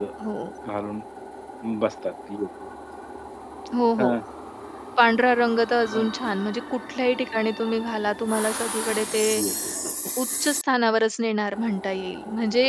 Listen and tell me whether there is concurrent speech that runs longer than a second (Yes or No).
No